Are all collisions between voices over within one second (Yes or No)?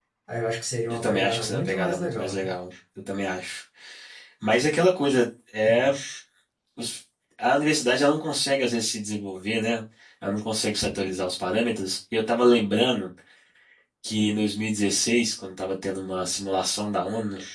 No